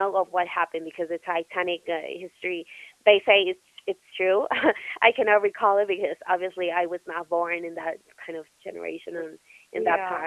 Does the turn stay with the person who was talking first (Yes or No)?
Yes